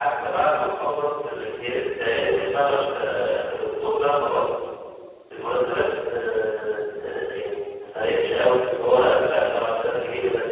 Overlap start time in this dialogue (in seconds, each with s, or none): none